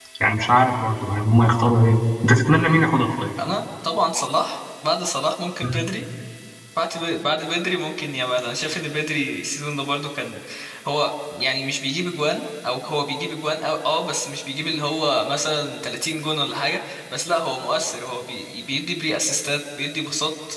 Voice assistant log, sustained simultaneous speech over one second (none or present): none